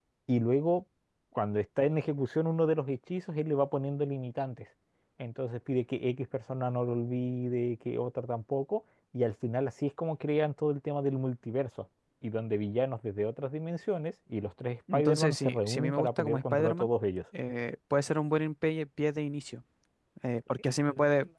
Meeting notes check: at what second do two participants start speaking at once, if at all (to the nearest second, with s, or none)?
15 s